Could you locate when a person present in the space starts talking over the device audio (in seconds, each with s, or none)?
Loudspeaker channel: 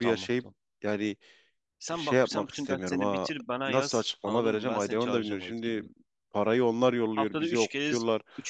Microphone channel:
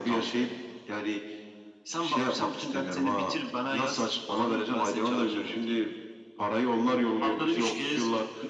none